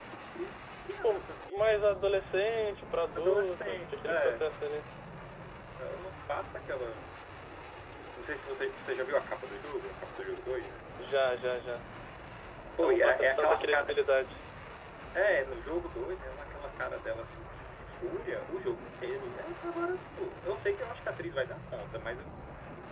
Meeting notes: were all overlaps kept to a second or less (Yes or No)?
No